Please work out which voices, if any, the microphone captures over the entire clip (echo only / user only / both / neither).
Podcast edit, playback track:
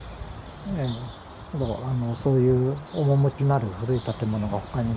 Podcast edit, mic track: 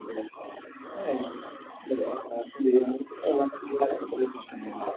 echo only